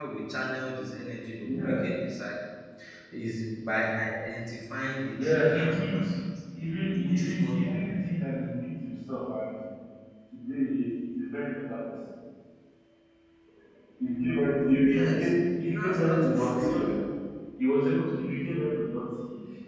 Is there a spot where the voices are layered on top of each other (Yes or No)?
Yes